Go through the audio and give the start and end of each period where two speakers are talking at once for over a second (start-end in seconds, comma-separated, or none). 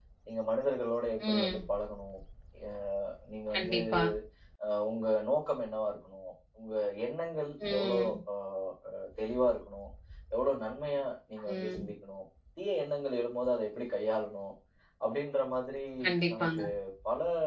none